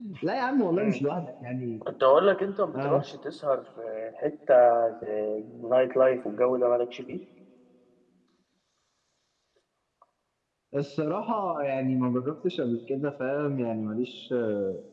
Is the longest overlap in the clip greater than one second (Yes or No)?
No